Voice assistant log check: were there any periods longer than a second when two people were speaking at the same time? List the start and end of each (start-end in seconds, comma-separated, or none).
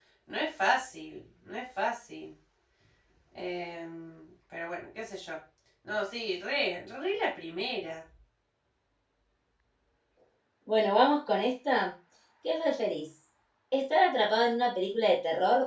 none